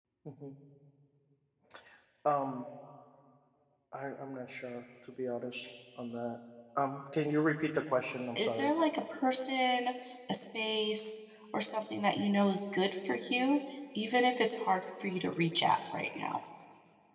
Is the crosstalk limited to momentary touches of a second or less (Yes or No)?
Yes